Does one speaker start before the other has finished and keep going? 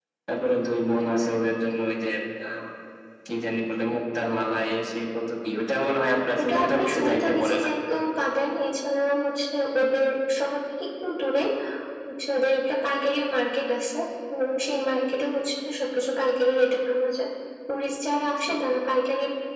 Yes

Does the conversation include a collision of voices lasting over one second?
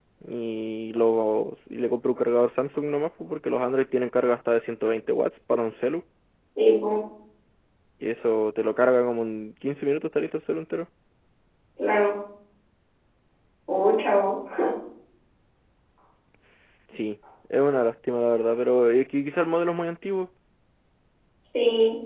No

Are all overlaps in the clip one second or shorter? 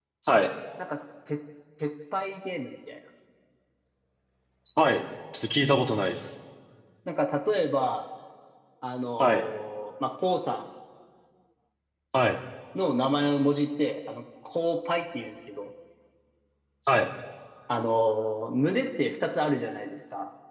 Yes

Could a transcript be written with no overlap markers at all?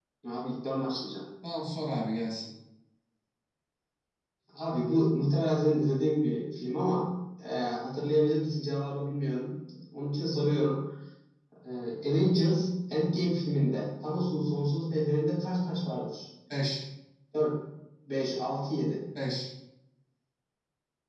Yes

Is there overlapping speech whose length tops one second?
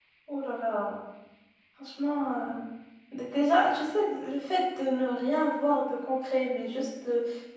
No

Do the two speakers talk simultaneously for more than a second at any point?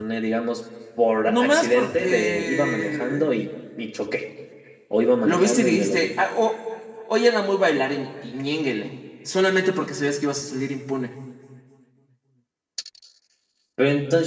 Yes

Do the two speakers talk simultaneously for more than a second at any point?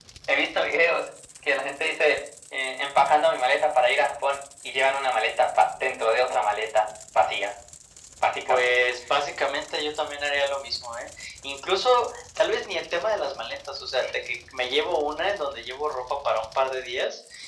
No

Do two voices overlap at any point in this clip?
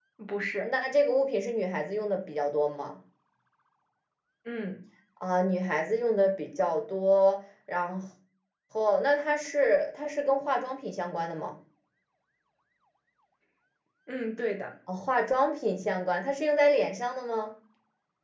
No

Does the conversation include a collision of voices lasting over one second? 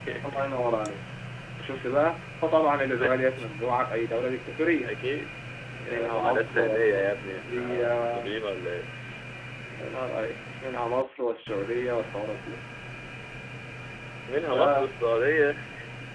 Yes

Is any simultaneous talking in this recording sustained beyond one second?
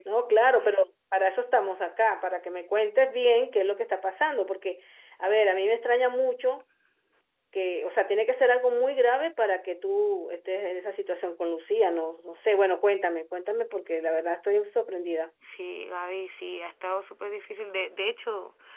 No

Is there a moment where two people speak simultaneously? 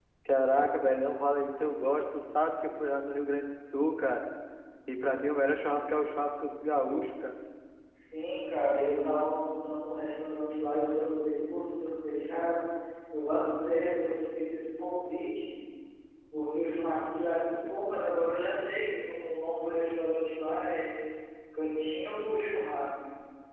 No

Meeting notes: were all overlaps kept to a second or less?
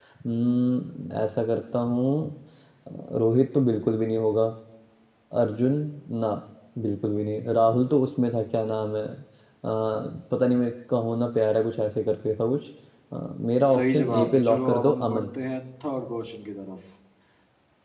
No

